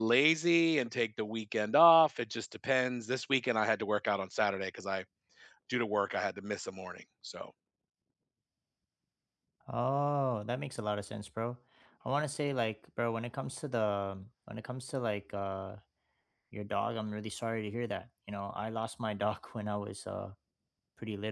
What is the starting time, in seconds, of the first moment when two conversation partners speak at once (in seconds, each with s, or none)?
none